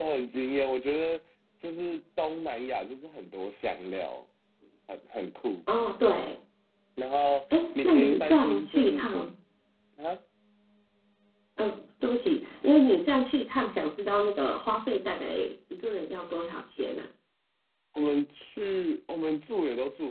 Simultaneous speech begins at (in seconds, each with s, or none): 7.5 s